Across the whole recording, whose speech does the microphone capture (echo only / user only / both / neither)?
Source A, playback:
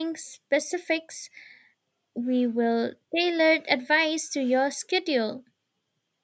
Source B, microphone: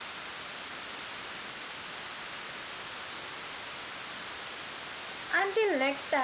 user only